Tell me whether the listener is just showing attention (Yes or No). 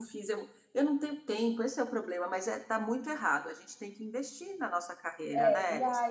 No